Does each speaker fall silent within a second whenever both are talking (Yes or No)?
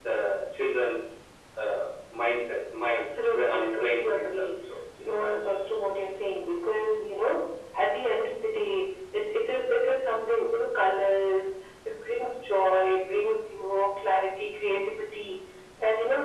No